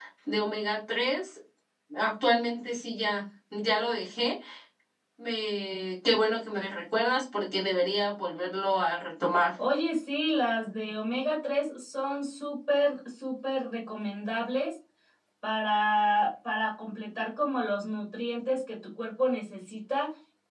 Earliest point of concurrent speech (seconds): none

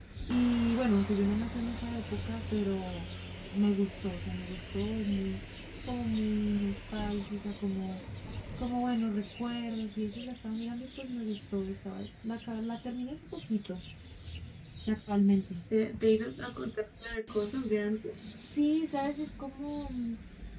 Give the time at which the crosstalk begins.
none

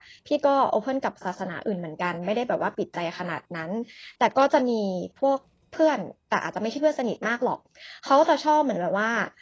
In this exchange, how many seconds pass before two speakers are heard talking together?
none

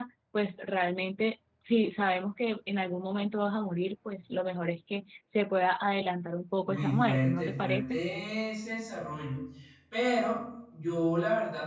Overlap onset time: 6.6 s

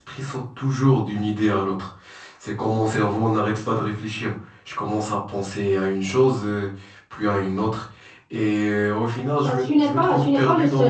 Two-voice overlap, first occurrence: 9.4 s

